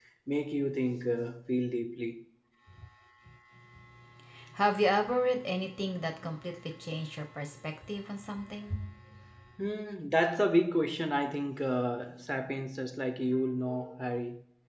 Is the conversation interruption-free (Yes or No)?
Yes